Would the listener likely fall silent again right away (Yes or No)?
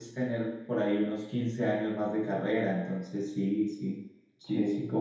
No